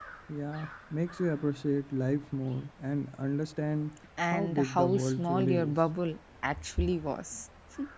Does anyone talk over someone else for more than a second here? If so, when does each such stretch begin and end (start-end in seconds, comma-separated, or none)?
4.3-5.8